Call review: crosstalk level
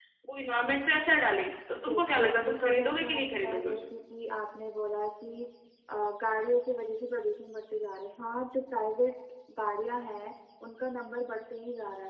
present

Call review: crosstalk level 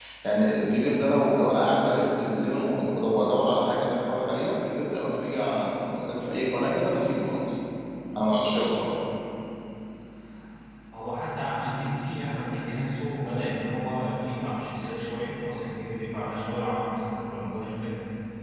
none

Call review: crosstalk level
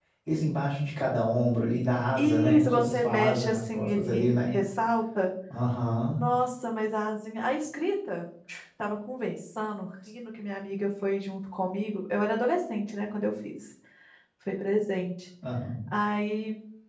present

